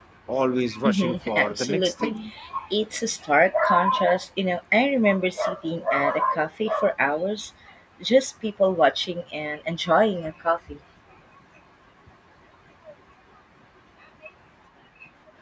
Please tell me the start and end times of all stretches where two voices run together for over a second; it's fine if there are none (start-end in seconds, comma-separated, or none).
0.8-2.1